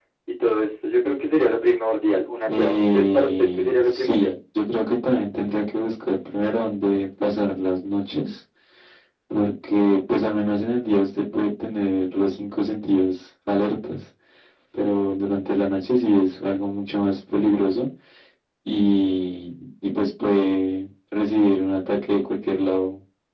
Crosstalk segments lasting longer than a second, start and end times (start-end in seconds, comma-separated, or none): 2.5-4.3